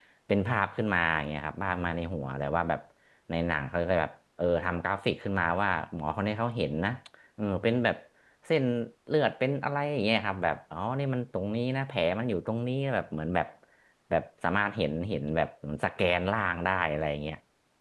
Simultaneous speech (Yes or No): No